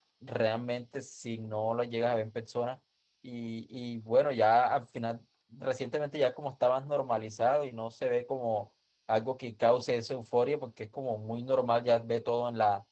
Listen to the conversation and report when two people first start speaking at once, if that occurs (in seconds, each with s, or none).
none